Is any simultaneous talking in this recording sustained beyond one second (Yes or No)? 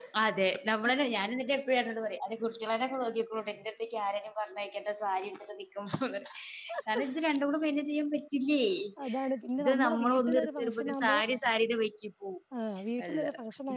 Yes